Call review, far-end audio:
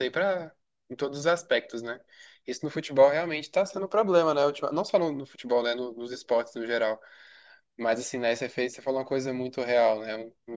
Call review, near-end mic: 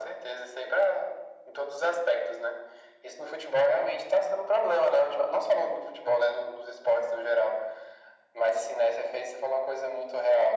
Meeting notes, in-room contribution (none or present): none